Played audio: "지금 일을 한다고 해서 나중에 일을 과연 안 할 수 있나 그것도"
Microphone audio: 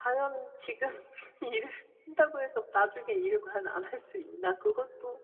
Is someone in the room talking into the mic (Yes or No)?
No